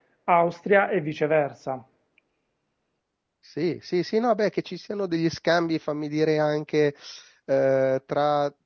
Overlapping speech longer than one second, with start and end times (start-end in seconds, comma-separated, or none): none